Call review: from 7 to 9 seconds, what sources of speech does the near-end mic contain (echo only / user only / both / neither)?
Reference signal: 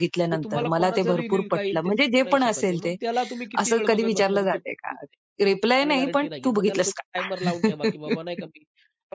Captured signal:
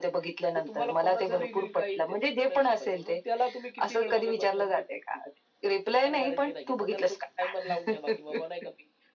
echo only